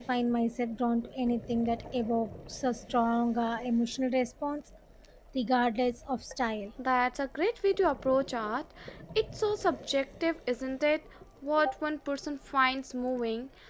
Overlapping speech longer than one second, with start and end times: none

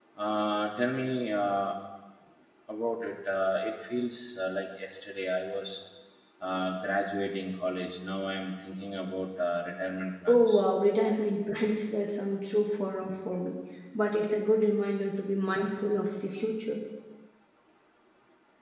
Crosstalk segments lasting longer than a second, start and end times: none

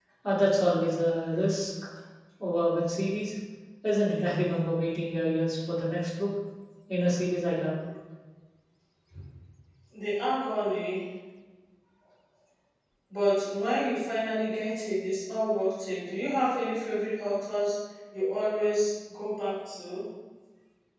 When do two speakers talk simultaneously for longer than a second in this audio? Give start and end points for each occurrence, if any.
none

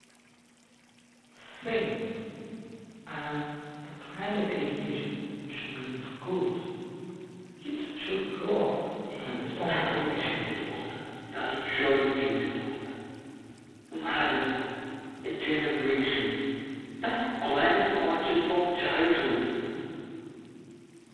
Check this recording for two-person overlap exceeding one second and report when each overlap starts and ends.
9.2-10.5

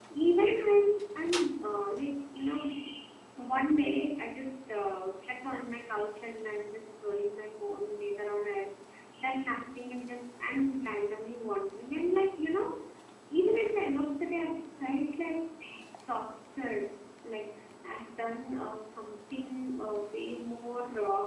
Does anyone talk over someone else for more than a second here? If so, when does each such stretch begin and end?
none

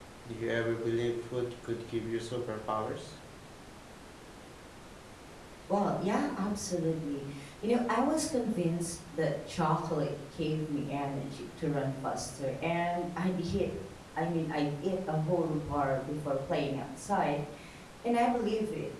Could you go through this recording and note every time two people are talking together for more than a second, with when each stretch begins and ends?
none

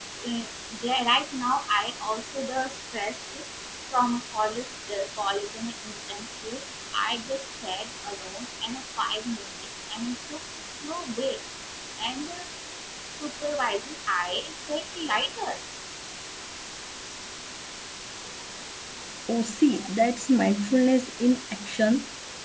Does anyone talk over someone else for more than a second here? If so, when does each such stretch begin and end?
none

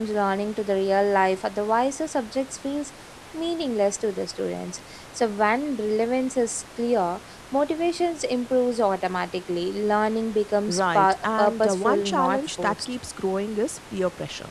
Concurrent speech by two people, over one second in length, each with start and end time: 10.7-12.9

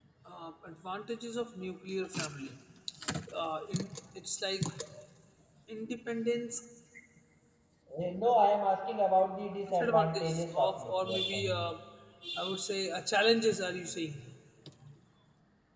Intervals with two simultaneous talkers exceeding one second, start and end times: 9.7-11.7

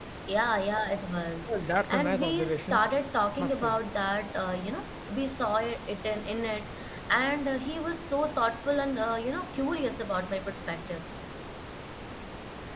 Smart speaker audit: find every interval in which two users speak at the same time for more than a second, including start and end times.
1.5-2.8

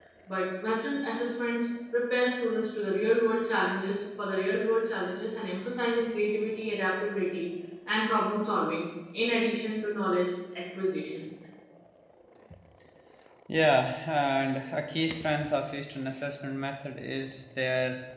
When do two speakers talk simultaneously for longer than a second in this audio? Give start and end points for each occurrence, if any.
none

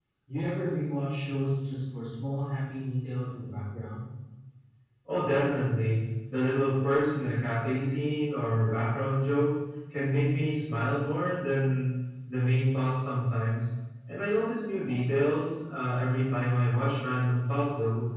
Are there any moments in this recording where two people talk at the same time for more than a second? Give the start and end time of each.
none

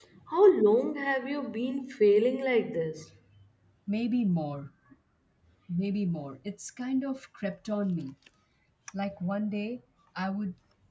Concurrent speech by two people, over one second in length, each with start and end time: none

